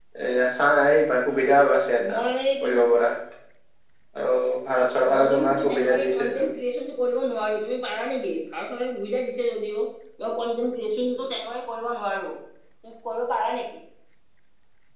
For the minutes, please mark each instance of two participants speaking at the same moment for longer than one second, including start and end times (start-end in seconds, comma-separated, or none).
5.1-6.5